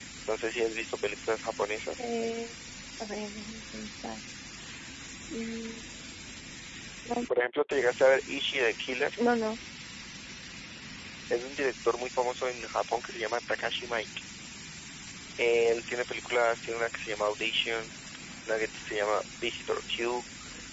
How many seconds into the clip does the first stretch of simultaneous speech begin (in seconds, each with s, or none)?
none